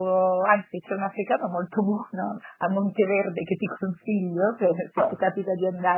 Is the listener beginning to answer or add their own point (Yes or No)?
No